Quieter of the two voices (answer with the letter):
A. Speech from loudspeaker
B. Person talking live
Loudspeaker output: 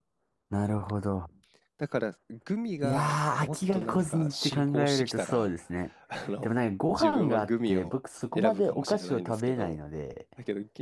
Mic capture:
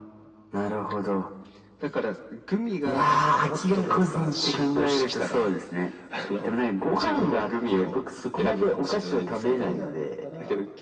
B